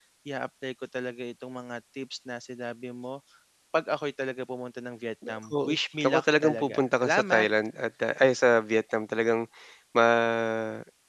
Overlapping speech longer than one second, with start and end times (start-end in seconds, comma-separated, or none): 5.3-7.5